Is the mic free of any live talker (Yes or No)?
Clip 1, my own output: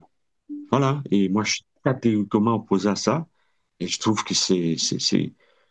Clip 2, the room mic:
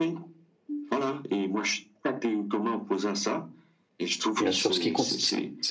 No